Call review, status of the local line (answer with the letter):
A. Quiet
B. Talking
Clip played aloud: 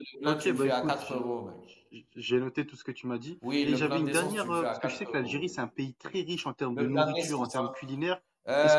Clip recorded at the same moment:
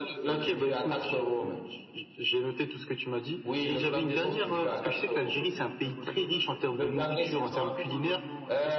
B